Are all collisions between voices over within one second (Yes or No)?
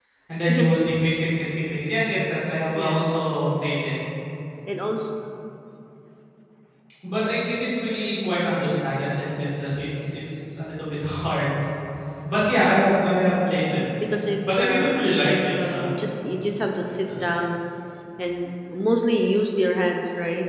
No